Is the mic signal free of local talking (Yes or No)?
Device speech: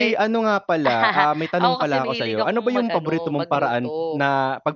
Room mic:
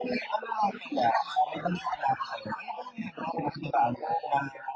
Yes